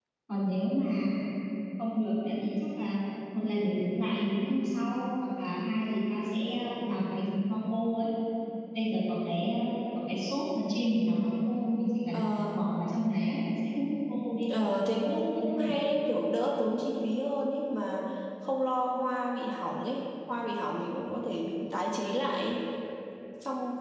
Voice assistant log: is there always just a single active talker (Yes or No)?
No